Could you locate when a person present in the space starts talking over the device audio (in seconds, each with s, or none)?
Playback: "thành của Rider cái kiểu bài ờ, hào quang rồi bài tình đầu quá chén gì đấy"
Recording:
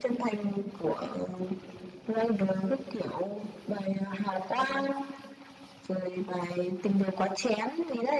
none